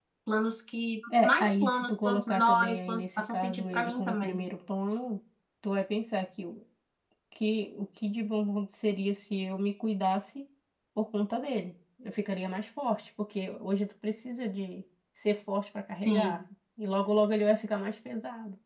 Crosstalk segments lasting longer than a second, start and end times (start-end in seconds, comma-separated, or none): 1.2-4.4